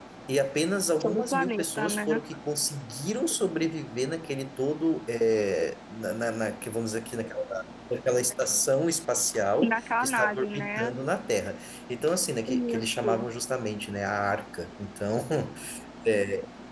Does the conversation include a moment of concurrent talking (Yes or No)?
Yes